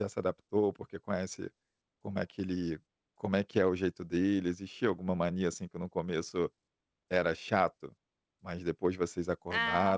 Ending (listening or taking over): taking over